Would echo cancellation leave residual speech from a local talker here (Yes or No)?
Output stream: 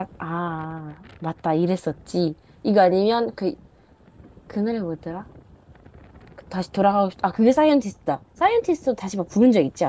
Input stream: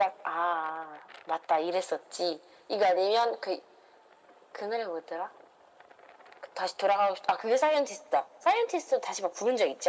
No